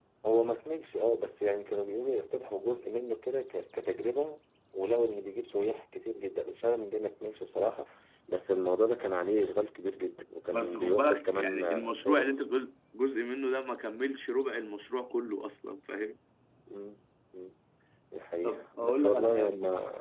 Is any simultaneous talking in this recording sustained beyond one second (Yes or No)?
Yes